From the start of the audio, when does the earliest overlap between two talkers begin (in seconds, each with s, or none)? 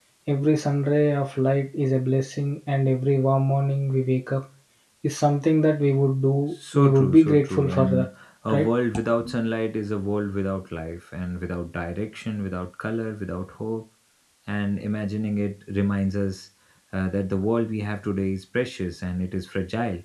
6.7 s